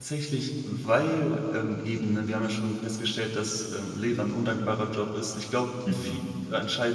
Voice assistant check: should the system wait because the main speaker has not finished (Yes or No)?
Yes